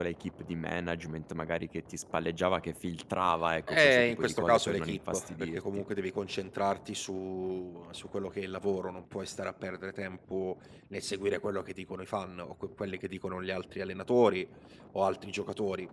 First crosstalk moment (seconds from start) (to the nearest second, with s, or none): 4 s